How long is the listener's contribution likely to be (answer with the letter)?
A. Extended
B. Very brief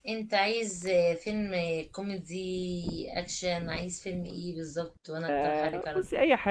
A